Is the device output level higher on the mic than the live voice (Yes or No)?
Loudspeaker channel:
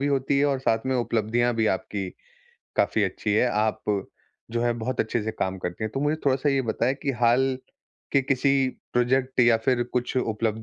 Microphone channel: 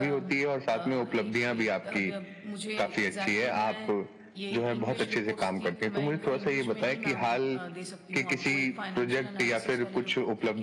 Yes